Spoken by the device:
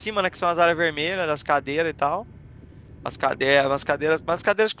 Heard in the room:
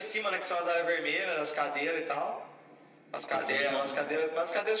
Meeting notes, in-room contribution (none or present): present